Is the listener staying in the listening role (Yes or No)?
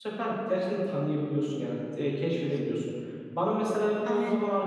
Yes